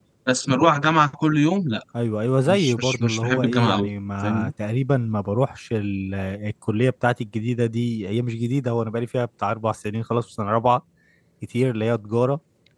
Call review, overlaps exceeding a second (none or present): present